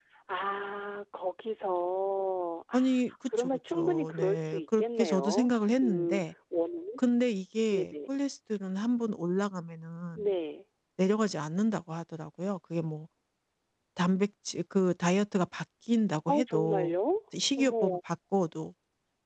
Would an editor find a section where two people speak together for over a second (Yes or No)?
Yes